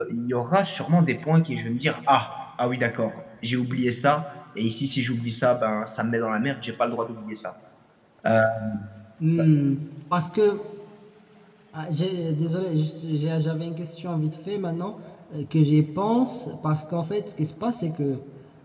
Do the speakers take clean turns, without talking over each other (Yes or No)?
Yes